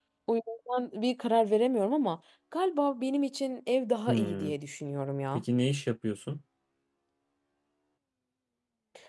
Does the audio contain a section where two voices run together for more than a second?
No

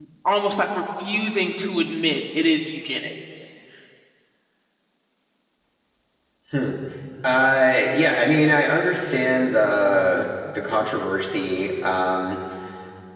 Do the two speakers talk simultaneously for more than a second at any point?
No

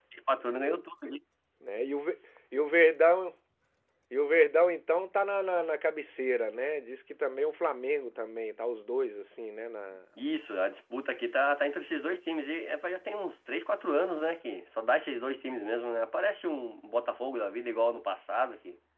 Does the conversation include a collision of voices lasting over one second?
No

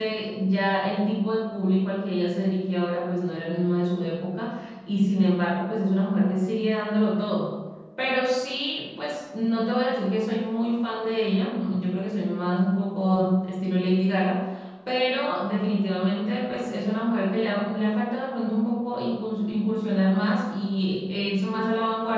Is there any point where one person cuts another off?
No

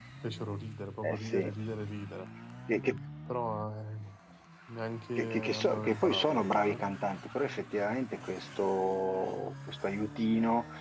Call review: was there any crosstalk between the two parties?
Yes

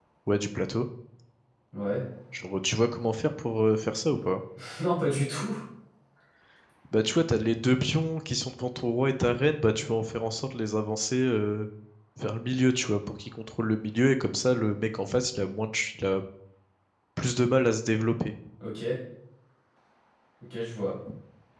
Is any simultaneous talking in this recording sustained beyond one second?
No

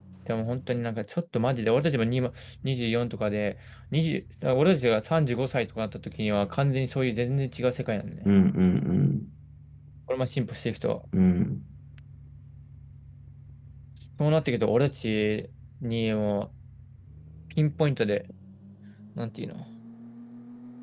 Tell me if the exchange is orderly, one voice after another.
Yes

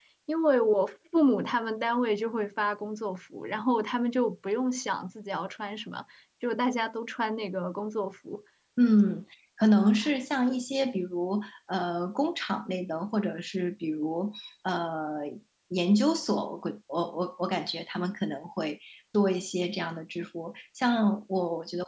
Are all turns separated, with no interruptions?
Yes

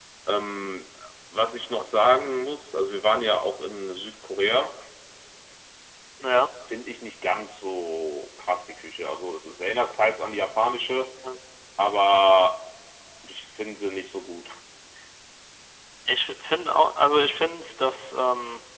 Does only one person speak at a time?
Yes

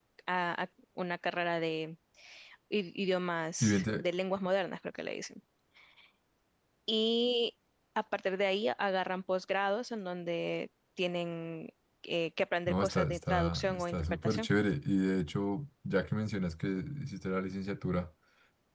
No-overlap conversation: No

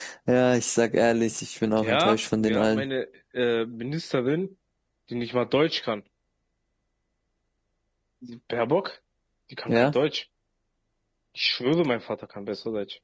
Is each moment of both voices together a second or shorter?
No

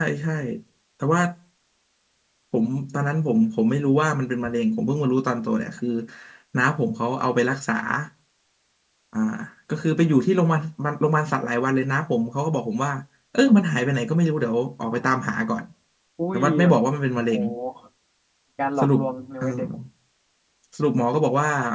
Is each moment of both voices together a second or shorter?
Yes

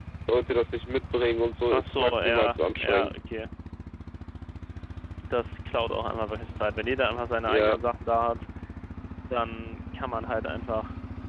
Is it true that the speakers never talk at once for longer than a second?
No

